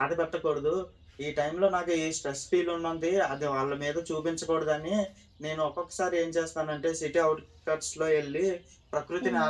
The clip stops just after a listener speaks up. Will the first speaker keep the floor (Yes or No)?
Yes